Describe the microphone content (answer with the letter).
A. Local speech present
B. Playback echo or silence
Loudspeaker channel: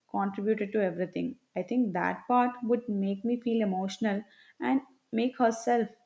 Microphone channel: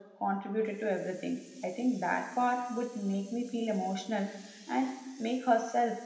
B